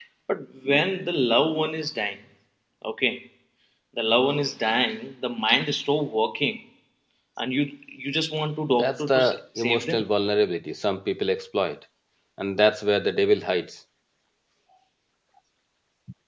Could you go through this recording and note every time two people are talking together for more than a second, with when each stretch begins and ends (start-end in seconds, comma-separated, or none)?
8.7-10.0